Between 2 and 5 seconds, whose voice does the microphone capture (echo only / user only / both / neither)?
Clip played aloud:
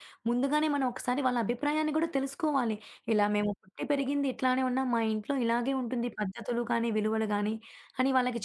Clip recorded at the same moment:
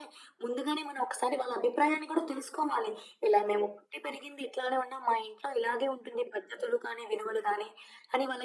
echo only